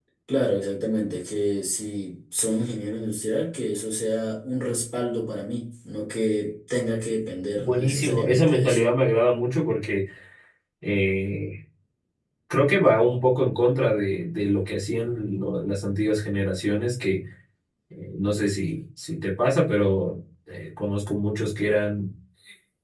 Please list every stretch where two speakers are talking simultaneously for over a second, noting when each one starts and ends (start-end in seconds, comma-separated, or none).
7.6-8.8